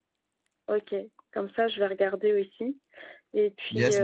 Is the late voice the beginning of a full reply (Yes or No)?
Yes